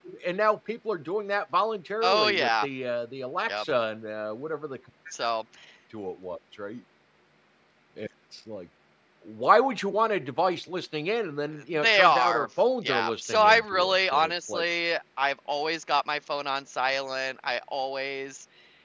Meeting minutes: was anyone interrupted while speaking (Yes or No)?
Yes